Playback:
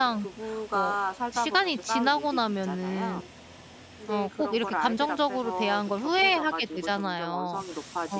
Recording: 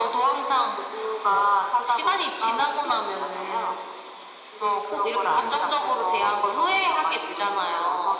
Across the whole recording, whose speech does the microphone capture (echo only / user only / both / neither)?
echo only